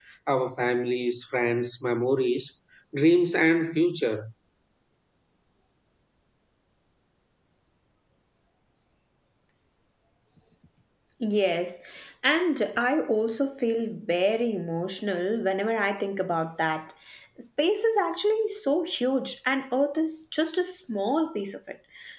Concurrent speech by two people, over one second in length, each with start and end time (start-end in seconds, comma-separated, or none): none